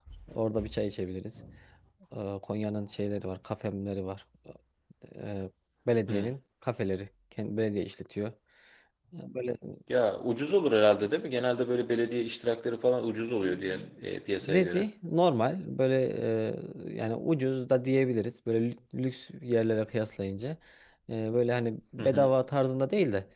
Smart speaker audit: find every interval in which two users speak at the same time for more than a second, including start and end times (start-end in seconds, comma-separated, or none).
none